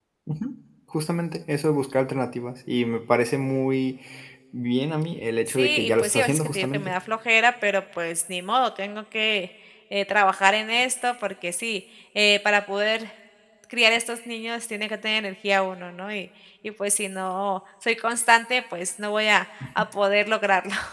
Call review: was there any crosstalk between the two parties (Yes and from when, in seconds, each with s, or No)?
Yes, from 5.5 s